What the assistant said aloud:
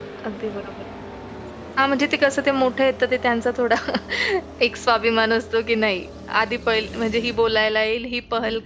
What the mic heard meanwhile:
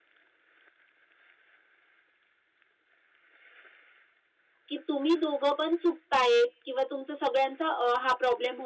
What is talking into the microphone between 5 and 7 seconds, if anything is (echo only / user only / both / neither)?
user only